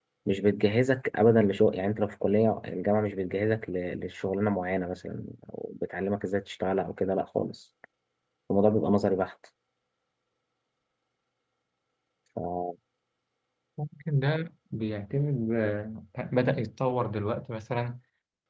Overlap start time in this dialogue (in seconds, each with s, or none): none